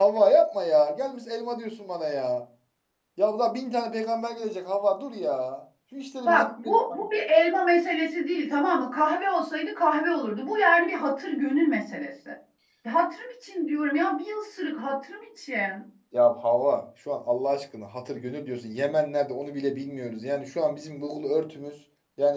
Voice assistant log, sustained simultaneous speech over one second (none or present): none